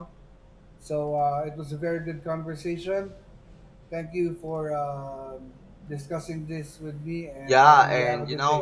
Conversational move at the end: taking over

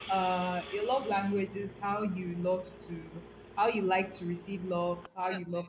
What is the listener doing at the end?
listening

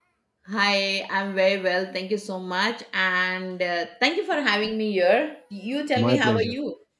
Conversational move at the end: taking over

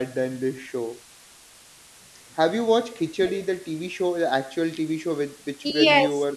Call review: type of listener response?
taking over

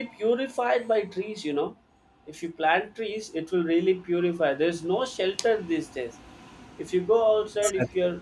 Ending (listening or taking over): listening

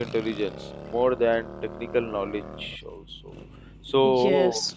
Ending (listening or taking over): listening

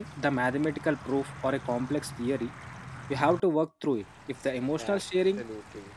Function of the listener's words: taking over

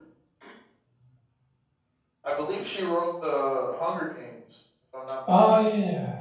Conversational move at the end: taking over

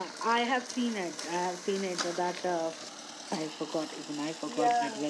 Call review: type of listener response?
taking over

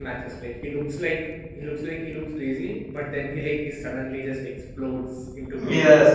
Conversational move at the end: taking over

